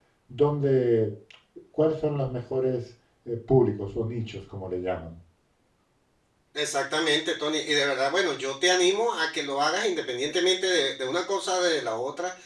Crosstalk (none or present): none